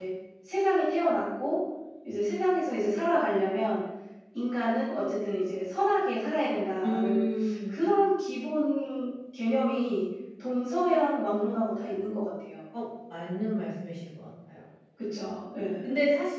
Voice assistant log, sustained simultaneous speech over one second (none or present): none